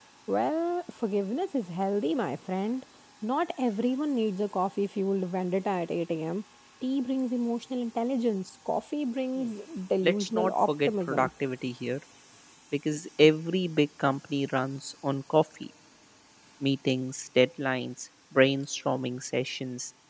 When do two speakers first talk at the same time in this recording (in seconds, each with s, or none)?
10.0 s